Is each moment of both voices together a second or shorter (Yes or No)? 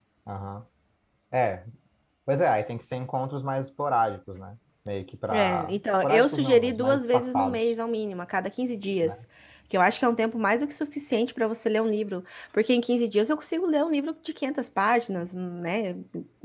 No